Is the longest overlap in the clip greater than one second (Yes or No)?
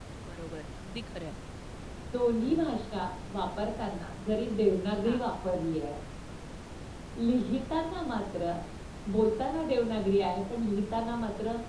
No